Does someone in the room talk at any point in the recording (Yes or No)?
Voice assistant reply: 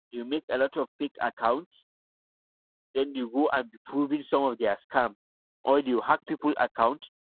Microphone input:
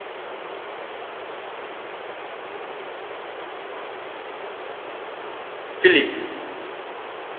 Yes